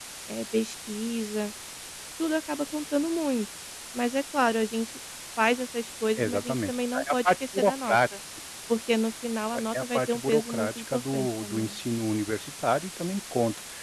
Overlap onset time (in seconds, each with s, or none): 6.2 s